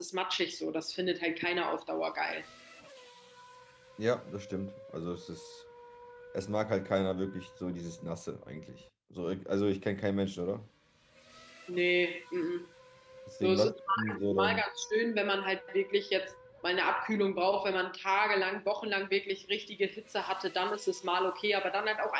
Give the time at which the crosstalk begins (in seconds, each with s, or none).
13.4 s